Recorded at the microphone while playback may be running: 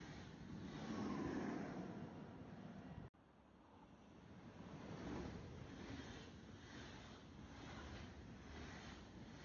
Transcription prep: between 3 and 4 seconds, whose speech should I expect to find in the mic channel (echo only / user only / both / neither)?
neither